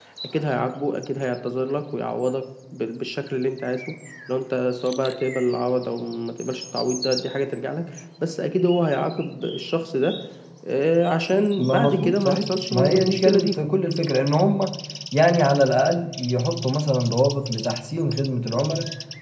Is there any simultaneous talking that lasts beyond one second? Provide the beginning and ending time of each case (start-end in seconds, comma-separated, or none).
11.6-13.6